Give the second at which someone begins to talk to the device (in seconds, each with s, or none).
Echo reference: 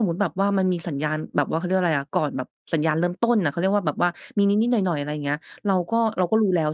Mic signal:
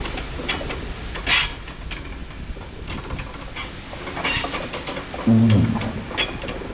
5.3 s